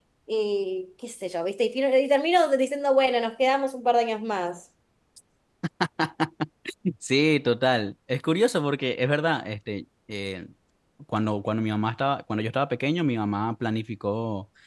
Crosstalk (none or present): none